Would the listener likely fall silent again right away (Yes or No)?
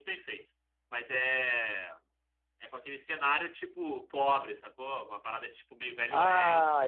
No